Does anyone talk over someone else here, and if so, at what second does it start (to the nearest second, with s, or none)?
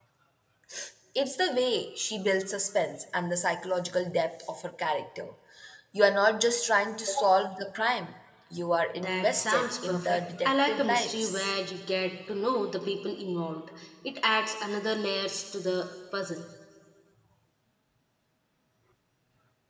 9 s